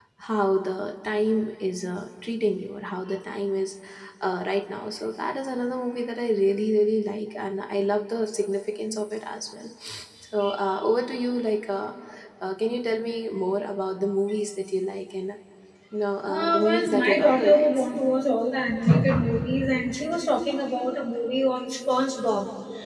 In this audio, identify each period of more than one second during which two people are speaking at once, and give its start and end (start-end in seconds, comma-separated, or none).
16.2-17.8